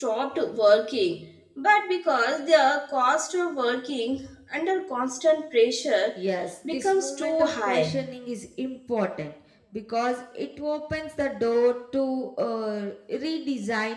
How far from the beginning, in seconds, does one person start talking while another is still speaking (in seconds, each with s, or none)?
6.7 s